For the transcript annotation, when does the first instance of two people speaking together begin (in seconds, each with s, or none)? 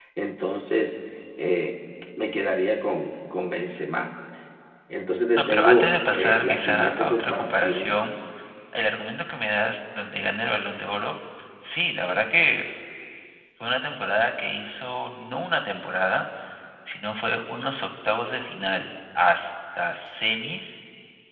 5.4 s